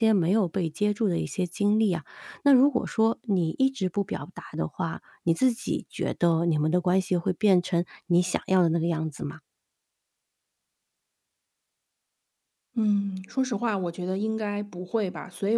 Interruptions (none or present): none